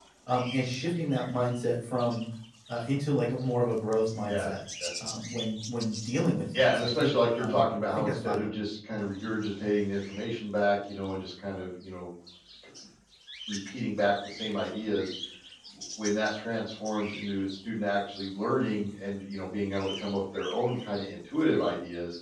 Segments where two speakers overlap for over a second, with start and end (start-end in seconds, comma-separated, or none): 6.5-8.5